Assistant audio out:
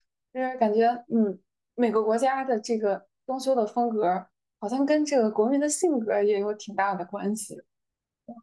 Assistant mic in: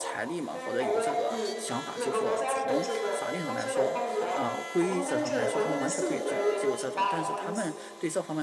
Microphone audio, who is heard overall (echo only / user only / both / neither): both